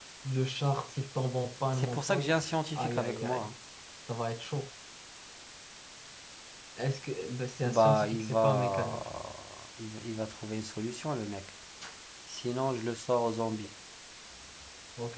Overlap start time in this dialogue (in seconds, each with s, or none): 1.7 s